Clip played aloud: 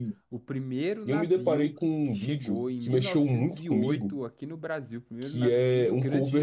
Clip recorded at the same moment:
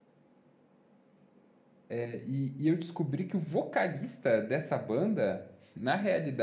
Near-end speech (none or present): present